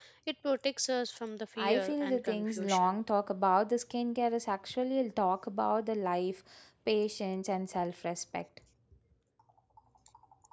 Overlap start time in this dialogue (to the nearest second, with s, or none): 2 s